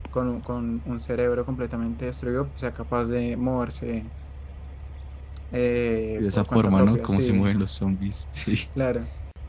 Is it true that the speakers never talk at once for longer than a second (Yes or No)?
No